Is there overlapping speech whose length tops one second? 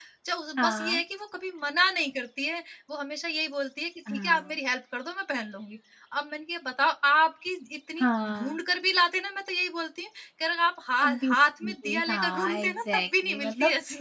Yes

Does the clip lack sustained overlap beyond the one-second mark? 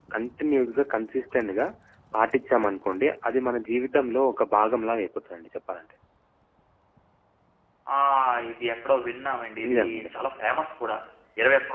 Yes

